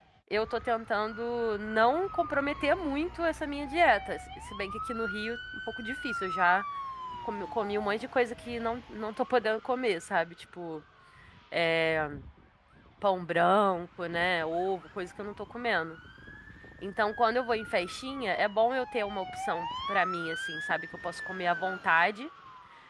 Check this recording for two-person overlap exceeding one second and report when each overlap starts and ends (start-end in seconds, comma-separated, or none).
none